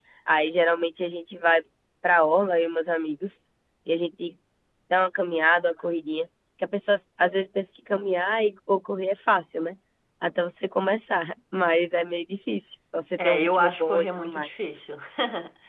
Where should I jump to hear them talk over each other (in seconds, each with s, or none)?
13.2 s